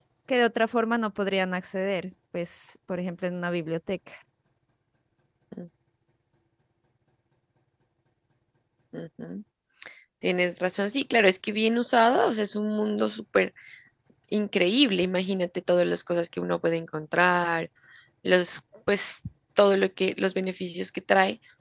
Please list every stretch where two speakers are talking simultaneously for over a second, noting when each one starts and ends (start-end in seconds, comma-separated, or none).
none